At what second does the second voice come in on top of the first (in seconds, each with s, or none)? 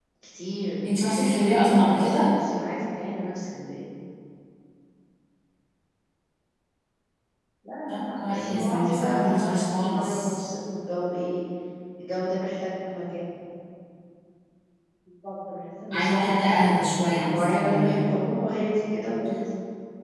0.8 s